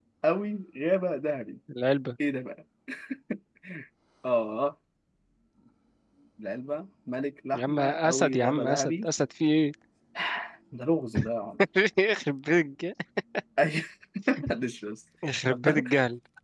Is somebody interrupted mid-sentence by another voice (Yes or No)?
Yes